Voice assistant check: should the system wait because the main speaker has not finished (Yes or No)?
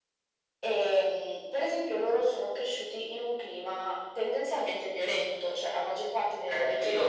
No